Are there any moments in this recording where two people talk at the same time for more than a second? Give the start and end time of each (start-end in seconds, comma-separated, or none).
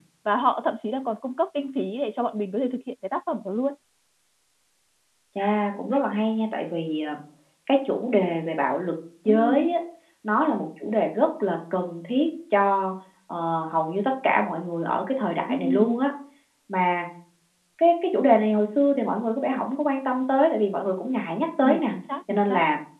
none